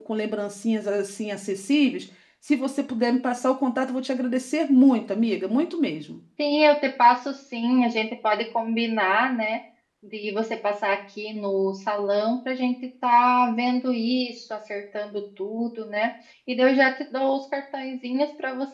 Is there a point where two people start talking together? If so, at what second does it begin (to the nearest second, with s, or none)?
none